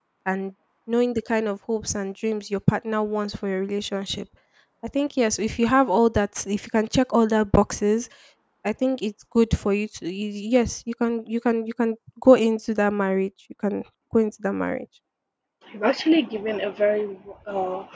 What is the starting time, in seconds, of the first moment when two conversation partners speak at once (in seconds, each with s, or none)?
none